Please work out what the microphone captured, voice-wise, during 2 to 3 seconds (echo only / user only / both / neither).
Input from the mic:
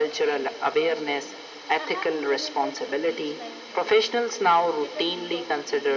both